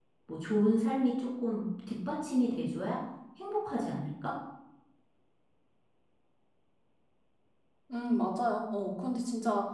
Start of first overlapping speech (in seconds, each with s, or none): none